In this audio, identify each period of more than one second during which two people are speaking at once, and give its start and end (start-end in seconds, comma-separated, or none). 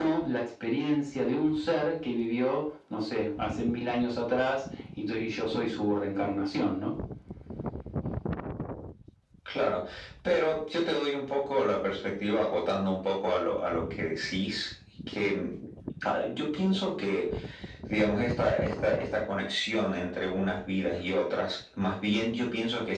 none